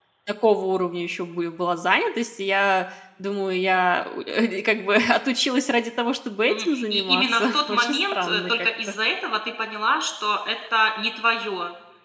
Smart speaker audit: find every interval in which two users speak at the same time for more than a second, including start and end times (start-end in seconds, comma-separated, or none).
6.5-8.7